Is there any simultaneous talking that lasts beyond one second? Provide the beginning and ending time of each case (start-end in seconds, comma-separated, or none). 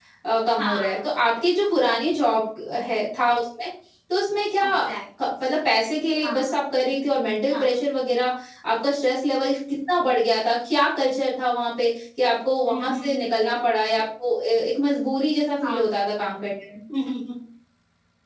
none